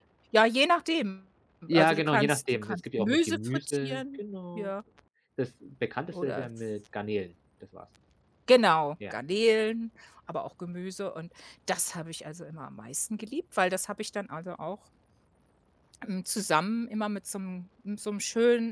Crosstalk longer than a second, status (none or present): present